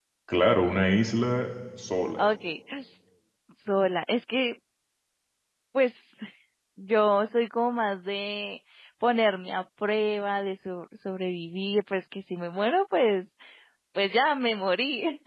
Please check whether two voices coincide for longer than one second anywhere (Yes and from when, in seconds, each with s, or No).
No